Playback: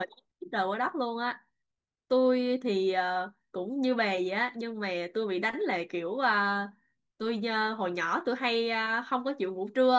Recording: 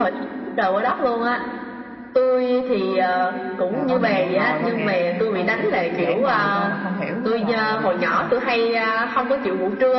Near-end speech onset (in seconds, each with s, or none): 3.7 s